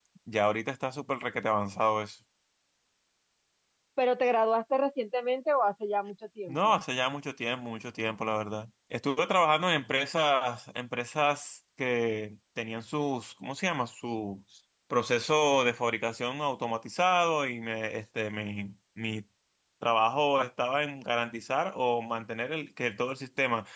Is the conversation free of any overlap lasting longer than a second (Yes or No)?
Yes